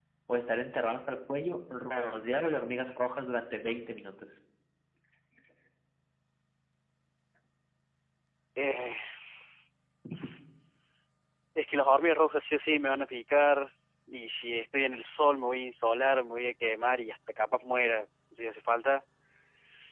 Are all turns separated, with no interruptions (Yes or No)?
Yes